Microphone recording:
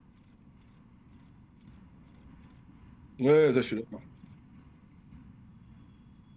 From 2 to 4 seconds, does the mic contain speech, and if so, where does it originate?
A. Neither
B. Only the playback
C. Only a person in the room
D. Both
C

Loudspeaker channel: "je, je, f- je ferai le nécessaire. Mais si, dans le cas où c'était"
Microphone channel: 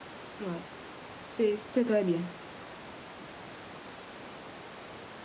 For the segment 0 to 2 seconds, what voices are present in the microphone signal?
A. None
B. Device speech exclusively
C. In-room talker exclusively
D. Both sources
C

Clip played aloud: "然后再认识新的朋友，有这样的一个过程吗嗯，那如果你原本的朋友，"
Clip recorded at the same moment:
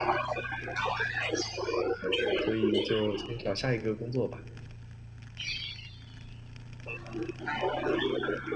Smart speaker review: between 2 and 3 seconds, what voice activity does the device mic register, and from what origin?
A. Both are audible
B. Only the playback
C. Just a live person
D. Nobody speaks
A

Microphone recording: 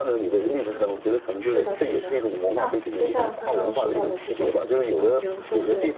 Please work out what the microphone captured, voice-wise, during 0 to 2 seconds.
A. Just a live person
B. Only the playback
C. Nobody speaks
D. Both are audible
D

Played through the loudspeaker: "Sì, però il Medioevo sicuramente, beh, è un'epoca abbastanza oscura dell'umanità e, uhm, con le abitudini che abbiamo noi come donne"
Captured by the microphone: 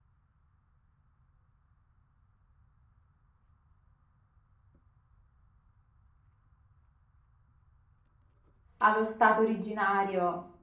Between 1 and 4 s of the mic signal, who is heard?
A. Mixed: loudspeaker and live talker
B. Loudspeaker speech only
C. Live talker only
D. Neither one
D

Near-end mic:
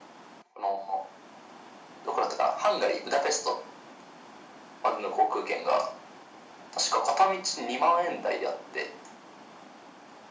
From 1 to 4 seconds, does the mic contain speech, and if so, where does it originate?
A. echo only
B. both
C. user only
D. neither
A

